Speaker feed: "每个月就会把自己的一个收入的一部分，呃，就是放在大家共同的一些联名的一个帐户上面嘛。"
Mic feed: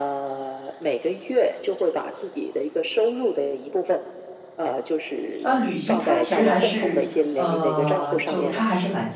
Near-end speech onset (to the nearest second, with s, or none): 5 s